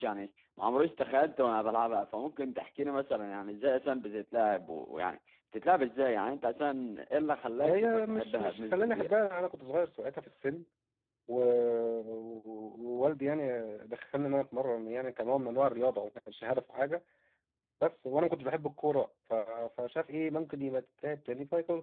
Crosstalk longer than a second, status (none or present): present